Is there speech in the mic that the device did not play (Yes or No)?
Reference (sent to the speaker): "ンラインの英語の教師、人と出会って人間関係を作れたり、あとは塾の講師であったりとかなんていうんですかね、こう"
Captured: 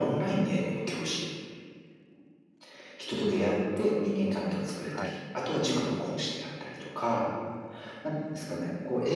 Yes